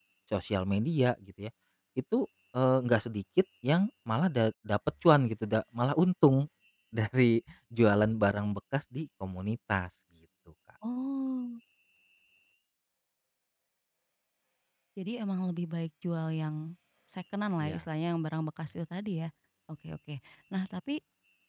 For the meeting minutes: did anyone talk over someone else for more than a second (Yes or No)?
No